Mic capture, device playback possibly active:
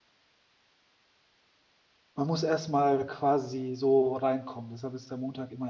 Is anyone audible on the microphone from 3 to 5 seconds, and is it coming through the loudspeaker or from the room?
user only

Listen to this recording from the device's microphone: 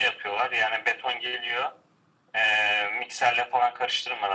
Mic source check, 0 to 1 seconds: echo only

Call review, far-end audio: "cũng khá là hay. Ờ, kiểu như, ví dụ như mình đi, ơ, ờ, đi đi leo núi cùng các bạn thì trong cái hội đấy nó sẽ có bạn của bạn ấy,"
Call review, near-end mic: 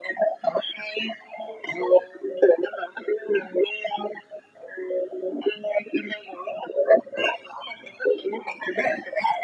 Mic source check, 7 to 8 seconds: echo only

